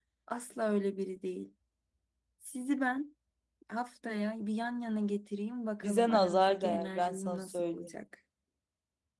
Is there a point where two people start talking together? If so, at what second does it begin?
6 s

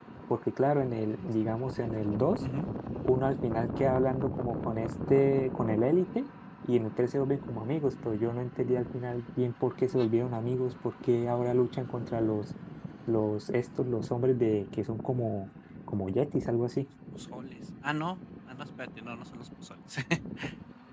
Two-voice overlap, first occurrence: none

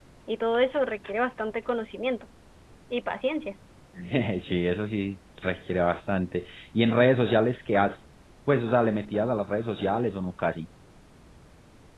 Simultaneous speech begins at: none

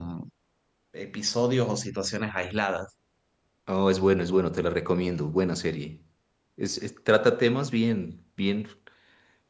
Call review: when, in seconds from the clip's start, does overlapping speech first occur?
none

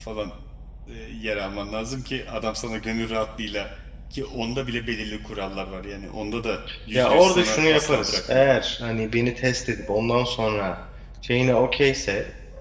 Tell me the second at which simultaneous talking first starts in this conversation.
7 s

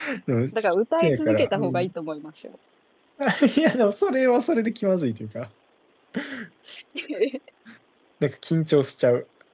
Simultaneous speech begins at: 1 s

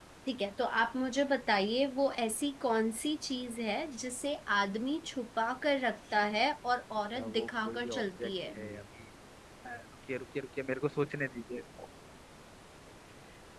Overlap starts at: 7 s

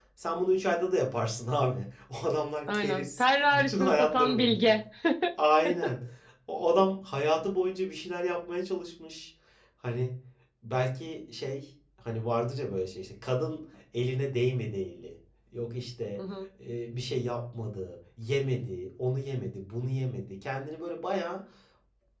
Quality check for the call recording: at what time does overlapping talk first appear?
3 s

